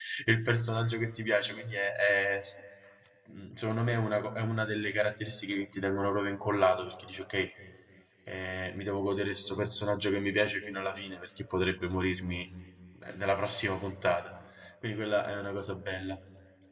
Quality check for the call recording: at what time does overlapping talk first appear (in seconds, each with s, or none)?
none